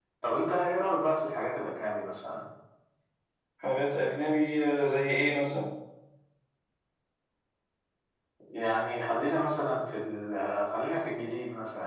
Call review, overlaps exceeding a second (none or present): none